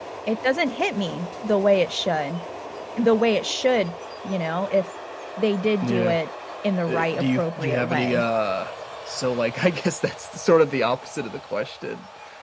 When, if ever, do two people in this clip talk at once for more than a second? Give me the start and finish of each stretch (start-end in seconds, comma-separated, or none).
6.9-8.2